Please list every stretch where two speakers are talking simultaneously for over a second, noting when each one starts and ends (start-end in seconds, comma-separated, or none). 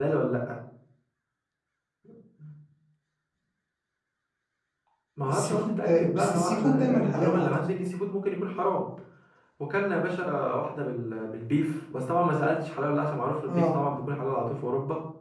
5.3-7.6